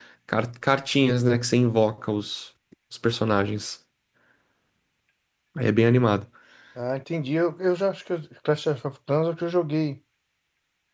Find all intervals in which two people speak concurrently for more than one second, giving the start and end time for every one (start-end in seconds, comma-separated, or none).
none